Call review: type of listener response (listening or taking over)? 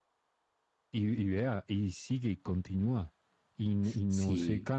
listening